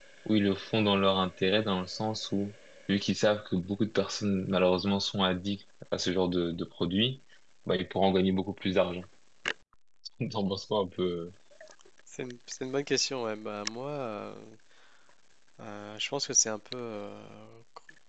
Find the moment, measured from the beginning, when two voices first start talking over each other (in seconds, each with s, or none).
none